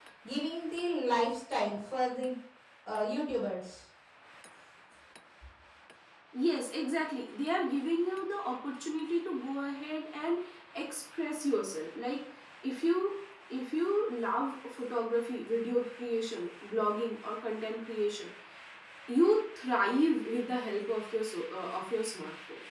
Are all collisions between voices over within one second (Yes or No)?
Yes